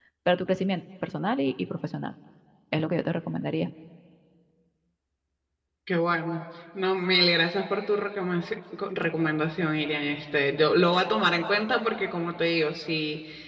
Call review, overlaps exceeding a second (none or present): none